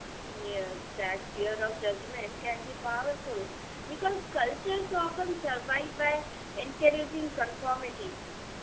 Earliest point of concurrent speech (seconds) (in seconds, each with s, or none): none